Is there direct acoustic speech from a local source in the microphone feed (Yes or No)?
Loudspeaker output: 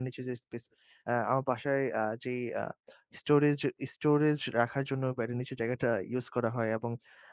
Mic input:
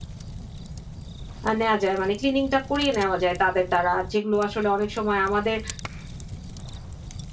Yes